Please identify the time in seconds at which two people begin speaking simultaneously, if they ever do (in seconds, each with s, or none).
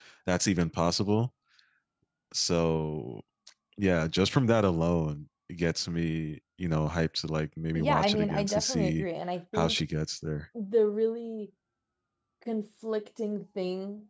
7.8 s